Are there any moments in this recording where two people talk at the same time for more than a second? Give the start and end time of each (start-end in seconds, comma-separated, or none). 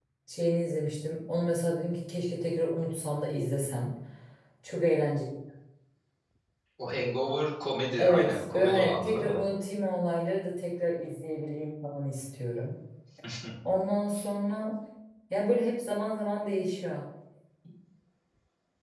8.0-9.4